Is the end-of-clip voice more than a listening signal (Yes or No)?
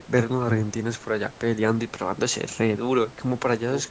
No